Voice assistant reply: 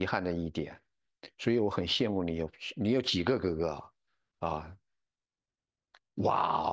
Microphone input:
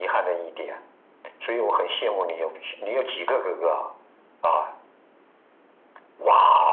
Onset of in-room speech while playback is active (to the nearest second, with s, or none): none